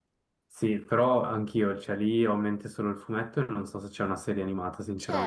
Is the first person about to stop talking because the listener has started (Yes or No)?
Yes